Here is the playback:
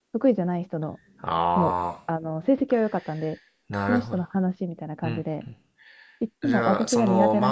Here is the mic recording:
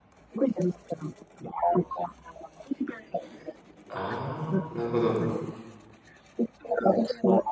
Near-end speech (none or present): present